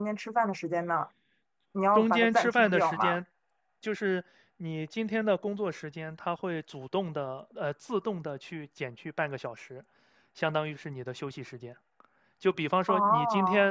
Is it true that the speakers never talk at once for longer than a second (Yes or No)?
No